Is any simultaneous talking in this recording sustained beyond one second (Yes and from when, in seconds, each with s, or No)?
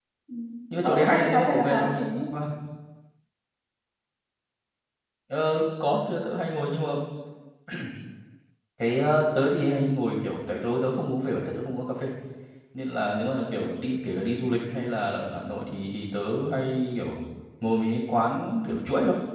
Yes, from 0.8 s